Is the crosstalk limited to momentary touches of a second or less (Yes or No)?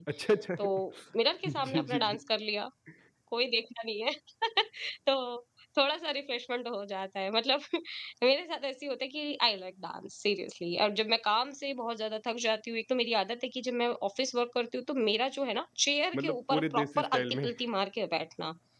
No